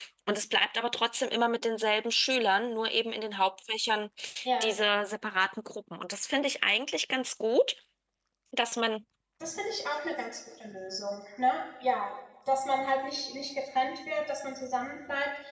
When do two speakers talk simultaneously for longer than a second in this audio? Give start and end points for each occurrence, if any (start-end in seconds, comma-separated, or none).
none